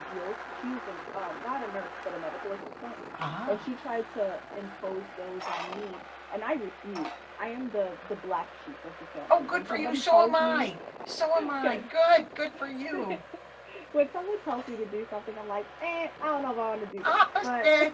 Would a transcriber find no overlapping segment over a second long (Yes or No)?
No